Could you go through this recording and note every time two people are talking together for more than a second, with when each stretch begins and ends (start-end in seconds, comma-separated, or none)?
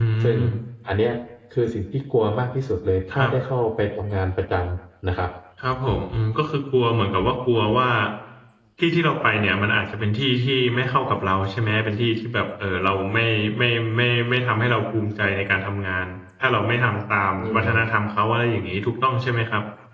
none